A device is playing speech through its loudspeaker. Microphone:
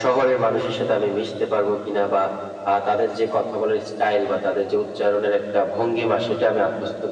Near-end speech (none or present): none